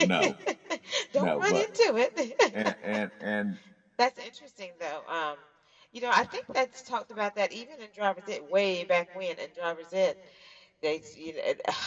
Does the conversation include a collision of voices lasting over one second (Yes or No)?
No